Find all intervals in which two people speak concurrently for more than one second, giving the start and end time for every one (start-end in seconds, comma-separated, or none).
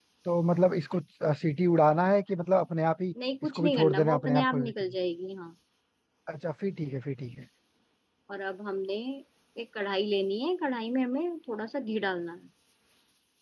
3.4-4.7